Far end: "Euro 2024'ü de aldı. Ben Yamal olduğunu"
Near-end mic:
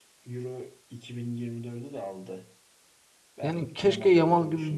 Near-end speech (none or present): present